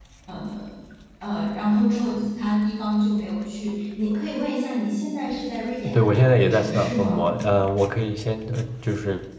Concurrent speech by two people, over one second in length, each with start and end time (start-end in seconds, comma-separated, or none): 5.9-7.3